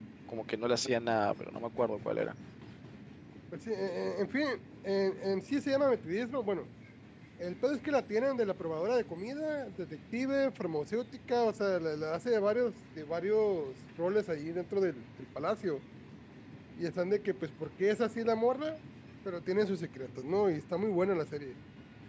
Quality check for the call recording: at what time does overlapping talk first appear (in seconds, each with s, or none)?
none